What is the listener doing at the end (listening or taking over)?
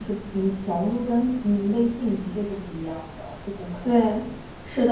taking over